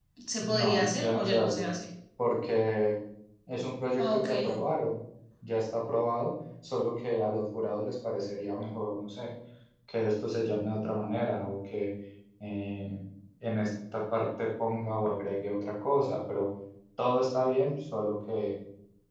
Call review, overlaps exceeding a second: present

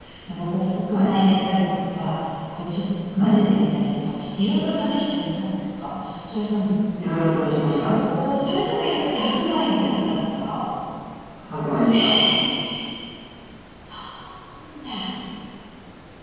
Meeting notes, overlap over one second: none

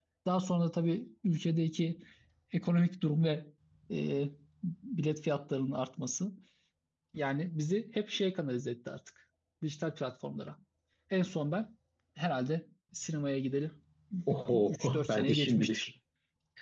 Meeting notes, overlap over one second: present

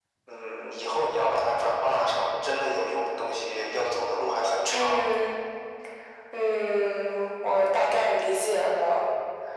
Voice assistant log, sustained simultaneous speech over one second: none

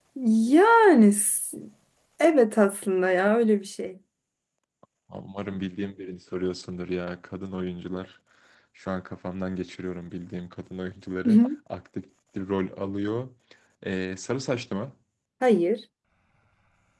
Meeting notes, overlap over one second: none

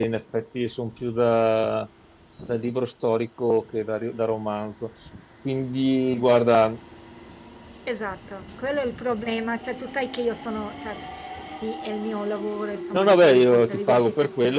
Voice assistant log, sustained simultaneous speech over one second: present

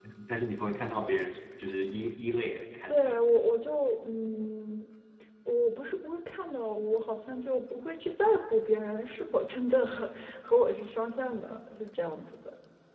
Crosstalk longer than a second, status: none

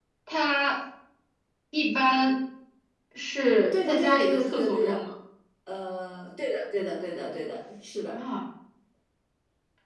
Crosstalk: present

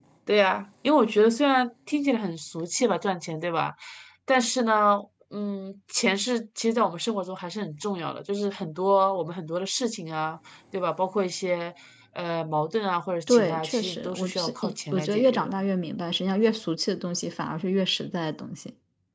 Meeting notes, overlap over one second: present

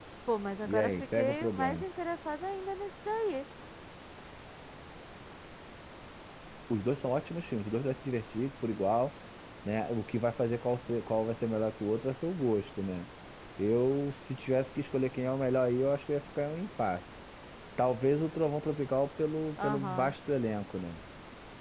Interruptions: present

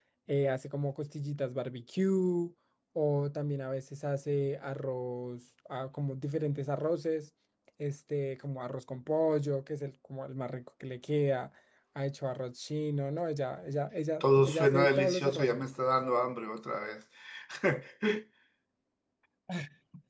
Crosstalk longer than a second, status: present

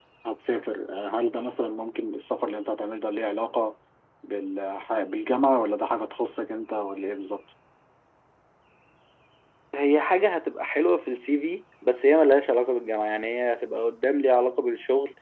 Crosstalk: none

